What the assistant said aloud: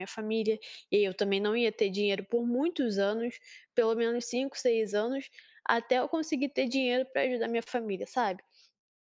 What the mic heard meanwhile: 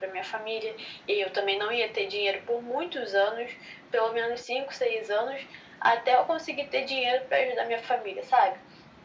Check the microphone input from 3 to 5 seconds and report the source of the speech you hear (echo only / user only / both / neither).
echo only